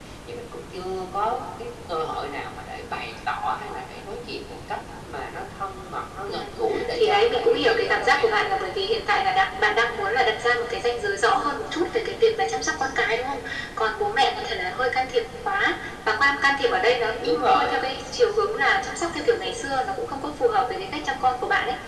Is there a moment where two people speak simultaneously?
Yes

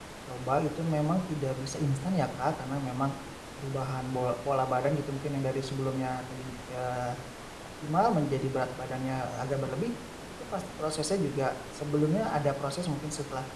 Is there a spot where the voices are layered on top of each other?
No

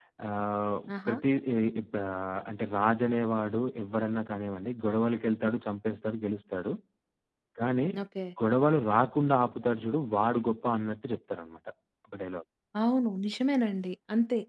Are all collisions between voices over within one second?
Yes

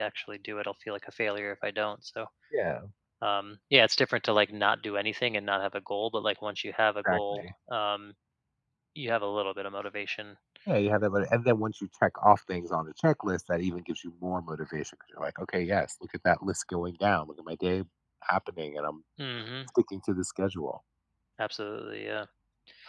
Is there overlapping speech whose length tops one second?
No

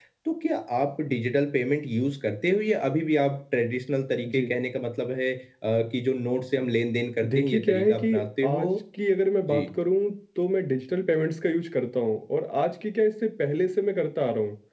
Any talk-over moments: Yes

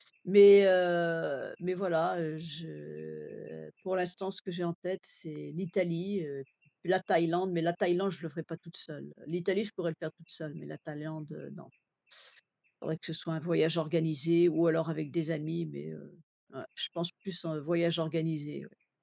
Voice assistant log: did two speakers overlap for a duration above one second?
No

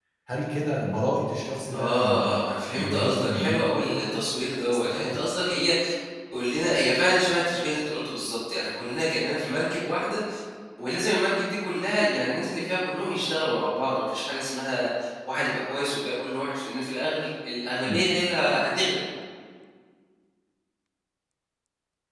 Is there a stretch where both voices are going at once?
Yes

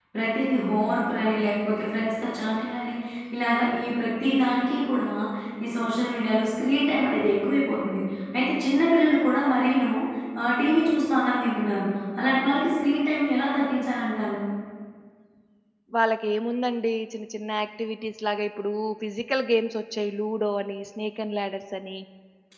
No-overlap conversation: Yes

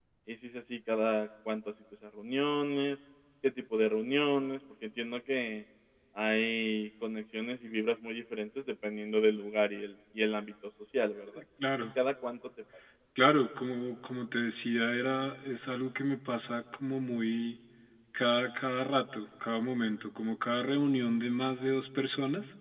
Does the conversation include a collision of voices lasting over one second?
No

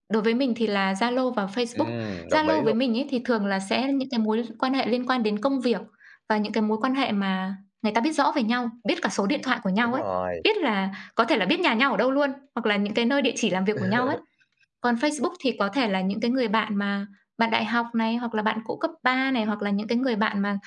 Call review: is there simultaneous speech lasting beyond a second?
No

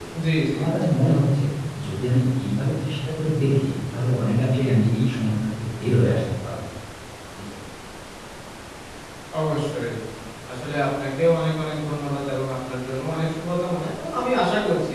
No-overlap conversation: Yes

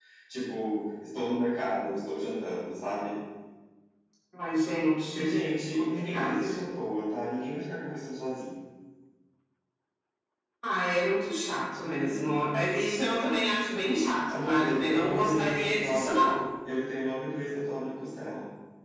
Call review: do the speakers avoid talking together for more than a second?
No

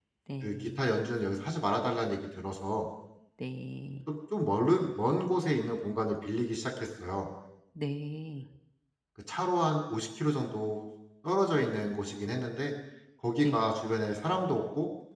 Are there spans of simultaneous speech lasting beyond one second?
No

